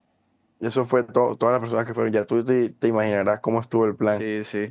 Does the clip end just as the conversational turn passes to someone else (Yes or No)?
Yes